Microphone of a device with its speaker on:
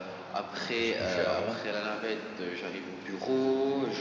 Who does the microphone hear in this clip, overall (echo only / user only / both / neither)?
both